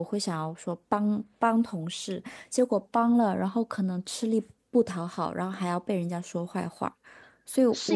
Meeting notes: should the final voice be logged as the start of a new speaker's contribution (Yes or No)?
Yes